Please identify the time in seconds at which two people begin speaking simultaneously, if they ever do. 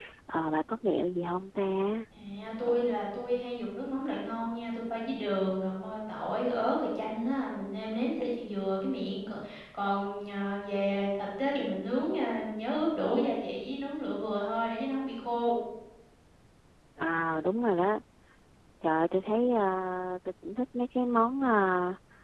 none

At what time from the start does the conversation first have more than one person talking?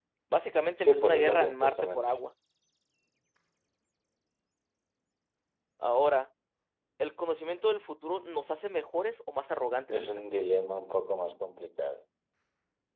0.8 s

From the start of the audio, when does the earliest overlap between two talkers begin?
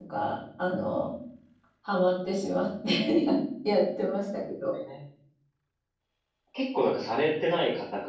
none

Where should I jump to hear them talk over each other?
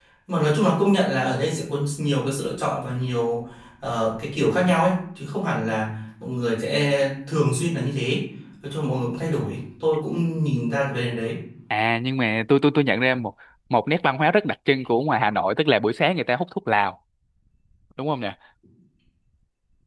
none

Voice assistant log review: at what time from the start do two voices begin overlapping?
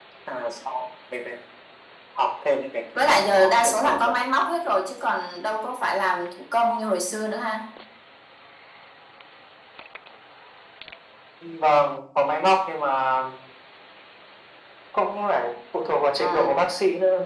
3.0 s

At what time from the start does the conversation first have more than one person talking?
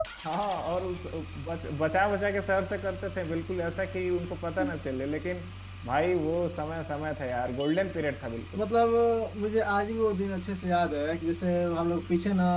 none

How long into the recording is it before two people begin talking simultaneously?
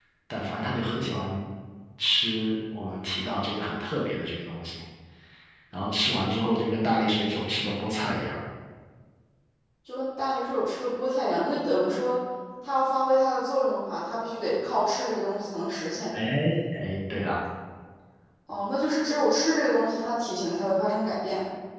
none

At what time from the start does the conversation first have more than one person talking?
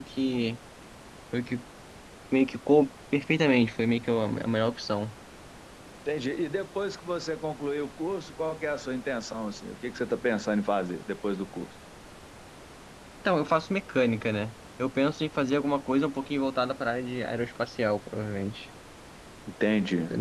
none

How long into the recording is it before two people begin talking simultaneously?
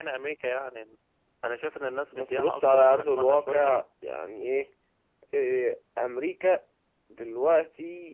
2.1 s

